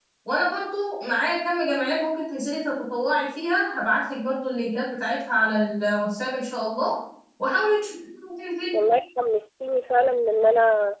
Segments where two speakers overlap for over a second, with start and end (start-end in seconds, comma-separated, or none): none